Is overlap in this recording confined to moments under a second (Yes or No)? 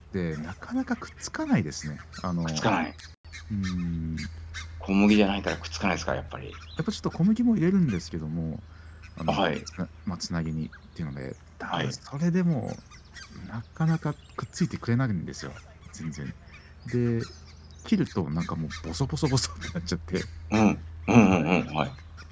Yes